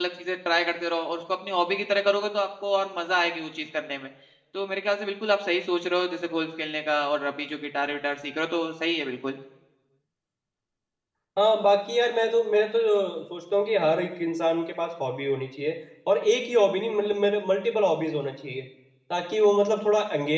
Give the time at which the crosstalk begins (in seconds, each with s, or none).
none